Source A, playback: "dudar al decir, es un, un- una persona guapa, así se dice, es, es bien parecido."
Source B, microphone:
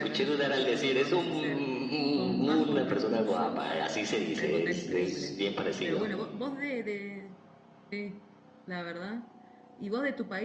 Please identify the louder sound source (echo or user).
echo